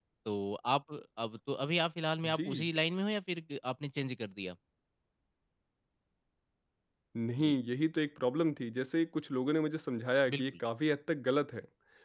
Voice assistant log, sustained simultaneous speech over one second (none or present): none